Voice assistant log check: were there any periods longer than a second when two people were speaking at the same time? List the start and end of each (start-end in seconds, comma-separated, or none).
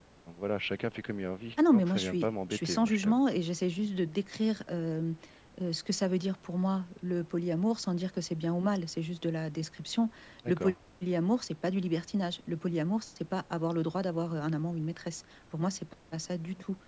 1.7-3.2